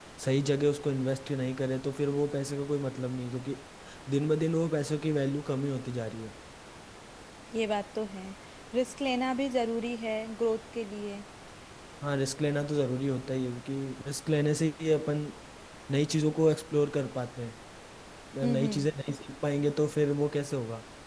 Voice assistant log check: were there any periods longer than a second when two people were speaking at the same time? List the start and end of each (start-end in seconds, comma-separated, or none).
none